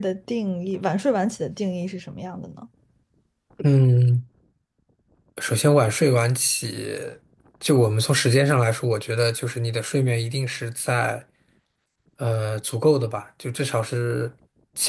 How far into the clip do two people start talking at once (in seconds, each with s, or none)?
none